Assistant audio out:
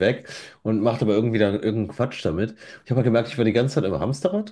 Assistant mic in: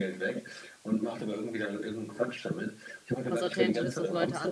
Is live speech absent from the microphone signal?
No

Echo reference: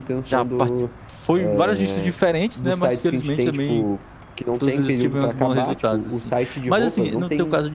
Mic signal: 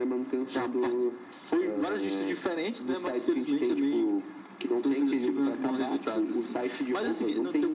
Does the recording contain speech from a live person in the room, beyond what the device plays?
No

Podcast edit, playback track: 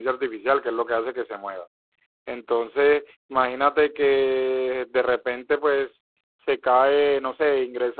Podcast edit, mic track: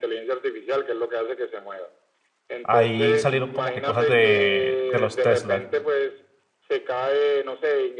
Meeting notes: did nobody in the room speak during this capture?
No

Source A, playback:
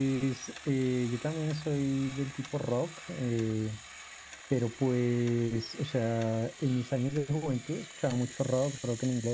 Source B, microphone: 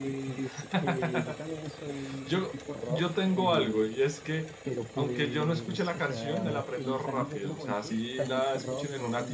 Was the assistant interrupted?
Yes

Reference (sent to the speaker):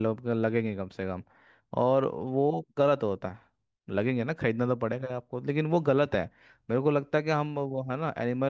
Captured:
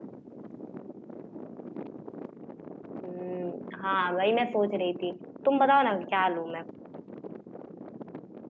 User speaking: Yes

